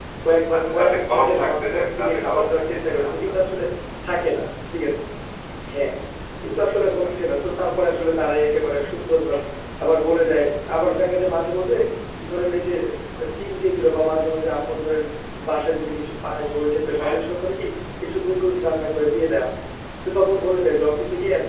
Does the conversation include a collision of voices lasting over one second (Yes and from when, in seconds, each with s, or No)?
Yes, from 0.6 s